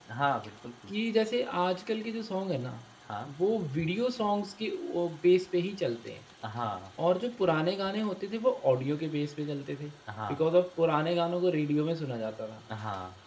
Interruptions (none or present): none